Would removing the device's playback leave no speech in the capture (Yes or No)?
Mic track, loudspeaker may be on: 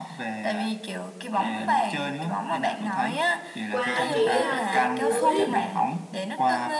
No